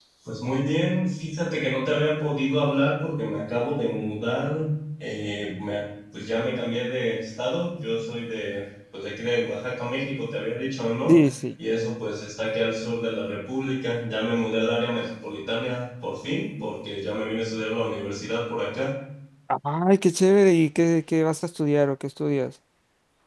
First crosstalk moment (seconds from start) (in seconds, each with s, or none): none